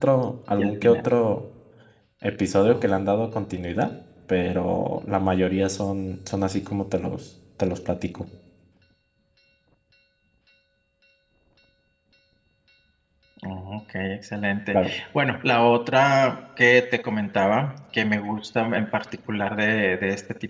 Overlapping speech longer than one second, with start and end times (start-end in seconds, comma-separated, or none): none